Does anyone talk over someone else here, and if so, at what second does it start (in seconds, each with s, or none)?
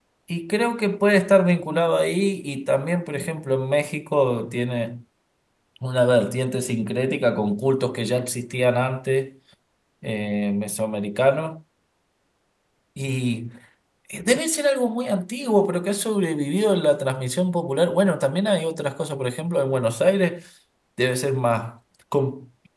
none